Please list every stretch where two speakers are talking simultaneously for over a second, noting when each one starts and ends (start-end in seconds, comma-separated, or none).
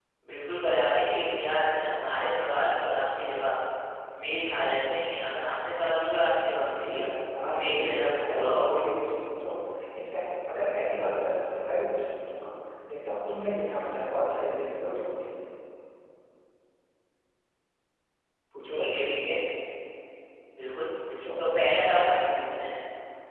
7.5-8.8